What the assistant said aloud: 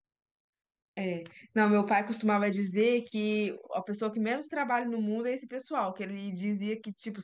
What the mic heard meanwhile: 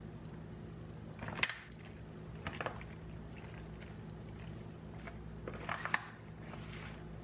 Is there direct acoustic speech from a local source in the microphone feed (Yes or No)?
No